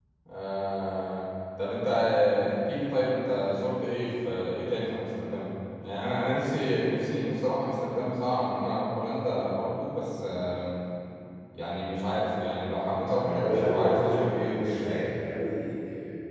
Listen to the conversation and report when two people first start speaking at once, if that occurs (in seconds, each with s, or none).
13.2 s